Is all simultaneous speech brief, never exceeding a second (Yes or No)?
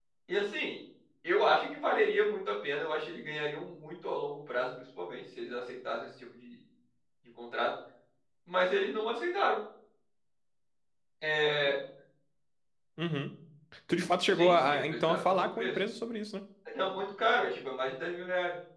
No